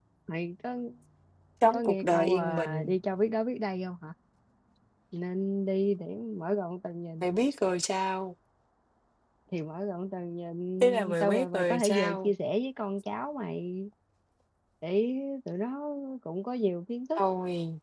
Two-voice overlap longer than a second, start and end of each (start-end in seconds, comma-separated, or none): 1.7-3.0, 10.8-12.3